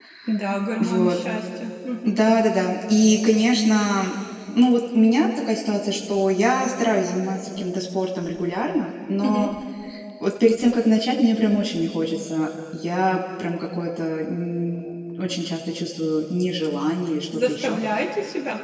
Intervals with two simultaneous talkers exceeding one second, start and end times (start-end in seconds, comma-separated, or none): none